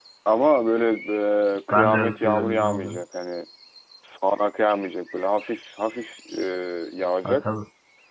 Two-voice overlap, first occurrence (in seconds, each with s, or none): 1.7 s